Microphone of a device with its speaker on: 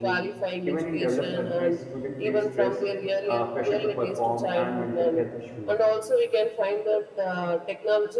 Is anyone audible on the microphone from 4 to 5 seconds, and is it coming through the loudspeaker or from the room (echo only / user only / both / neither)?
both